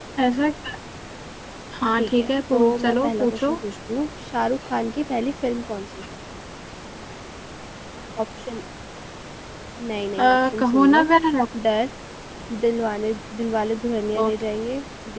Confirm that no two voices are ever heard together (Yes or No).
No